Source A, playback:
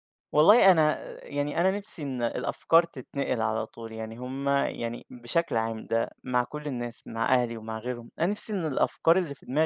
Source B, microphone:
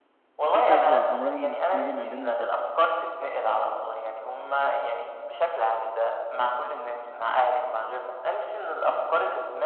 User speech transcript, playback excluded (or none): في فجوة عمرها ما هتتملي ما بين البشر،